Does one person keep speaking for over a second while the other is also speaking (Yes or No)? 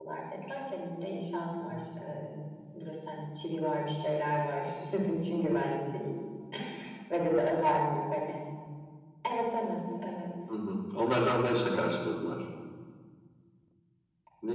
No